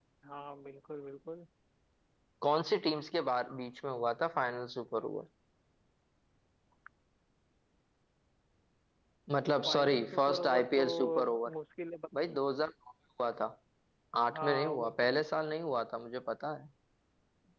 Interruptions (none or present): present